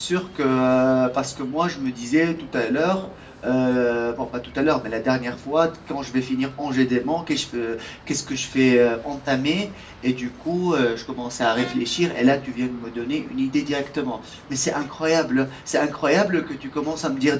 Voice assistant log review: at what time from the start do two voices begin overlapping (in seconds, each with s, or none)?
none